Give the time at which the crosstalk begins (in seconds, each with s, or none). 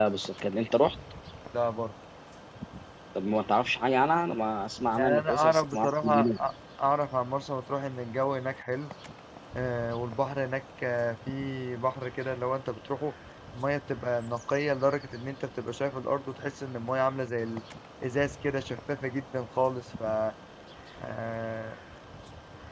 5.0 s